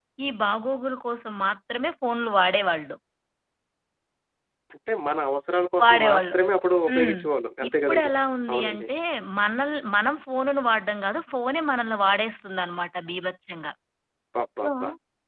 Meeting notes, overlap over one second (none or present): none